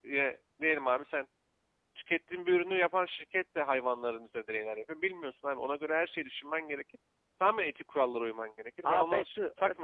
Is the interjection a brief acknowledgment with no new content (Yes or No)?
No